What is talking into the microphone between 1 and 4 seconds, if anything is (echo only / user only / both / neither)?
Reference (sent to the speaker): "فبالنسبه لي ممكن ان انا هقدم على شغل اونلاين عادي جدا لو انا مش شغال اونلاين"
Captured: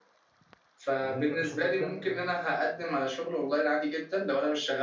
both